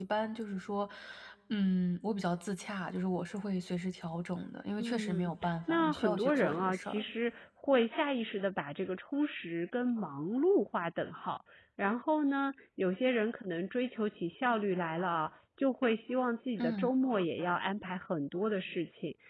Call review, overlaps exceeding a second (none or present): present